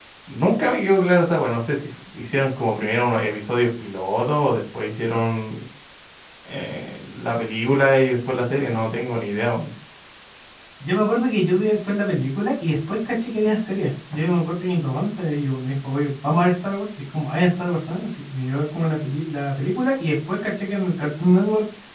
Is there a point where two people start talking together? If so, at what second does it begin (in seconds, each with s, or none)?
none